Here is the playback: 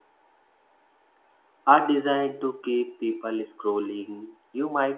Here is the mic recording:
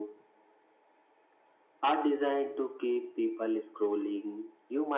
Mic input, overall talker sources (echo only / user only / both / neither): echo only